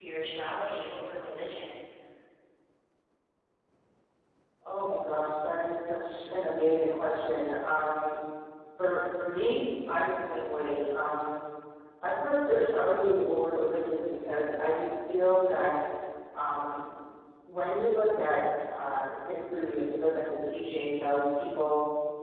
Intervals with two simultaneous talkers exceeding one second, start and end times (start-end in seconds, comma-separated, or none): none